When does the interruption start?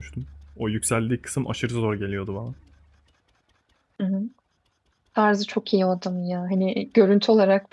none

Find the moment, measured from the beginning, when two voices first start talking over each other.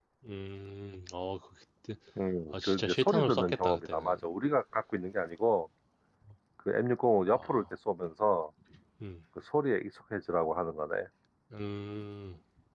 2.6 s

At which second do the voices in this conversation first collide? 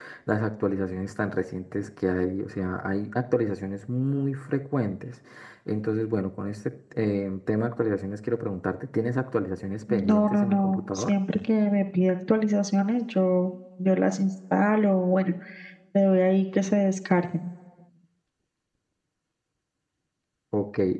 9.9 s

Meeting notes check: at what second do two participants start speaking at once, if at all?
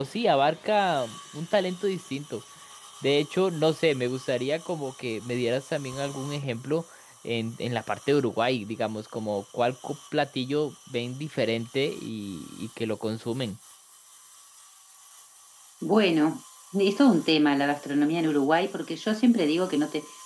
none

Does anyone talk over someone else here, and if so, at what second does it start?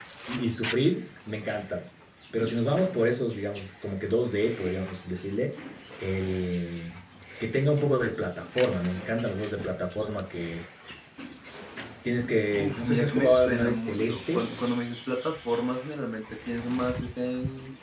12.6 s

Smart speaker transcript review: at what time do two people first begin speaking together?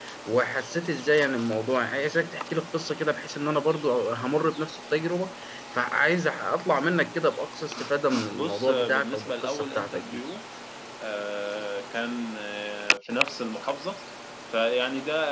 8.3 s

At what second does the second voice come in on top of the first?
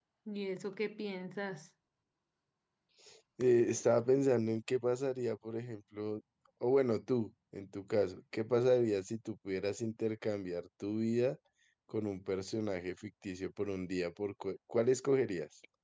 none

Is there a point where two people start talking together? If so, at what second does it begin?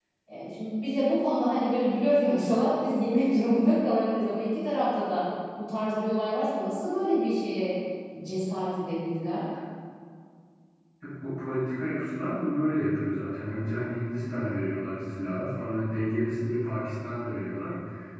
none

